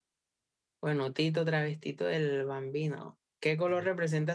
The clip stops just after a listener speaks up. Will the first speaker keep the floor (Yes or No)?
Yes